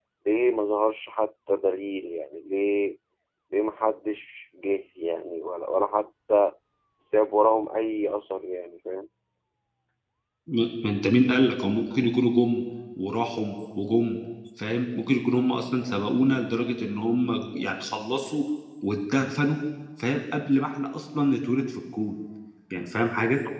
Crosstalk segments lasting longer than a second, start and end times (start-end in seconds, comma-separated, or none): none